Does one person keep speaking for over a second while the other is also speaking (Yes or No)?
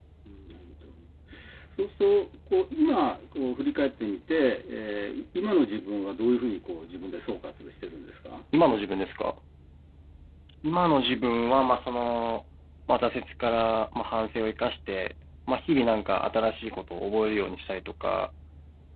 No